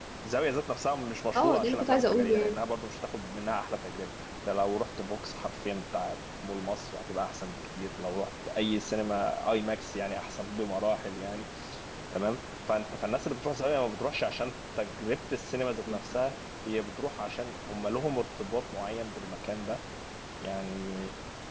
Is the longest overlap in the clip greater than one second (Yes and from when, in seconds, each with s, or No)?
Yes, from 1.4 s